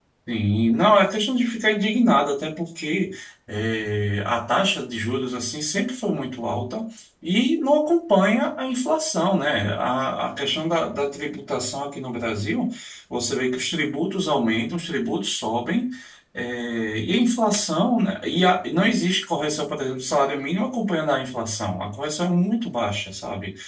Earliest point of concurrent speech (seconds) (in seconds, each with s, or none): none